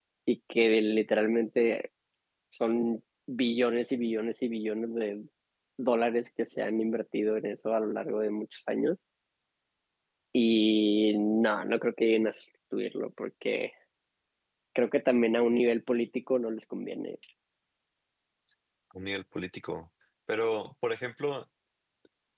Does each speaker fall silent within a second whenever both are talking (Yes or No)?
Yes